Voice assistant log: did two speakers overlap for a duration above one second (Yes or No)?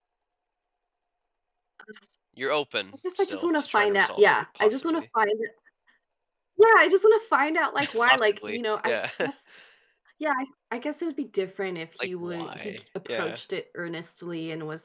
Yes